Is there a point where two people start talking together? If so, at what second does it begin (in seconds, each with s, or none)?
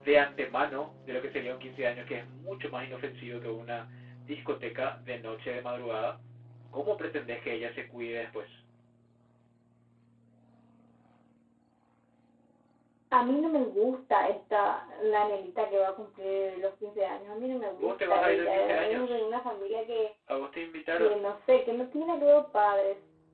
17.8 s